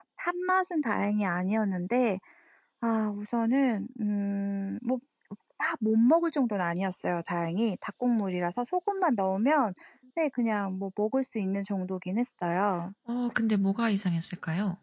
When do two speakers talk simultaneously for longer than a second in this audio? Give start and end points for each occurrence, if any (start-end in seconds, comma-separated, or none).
none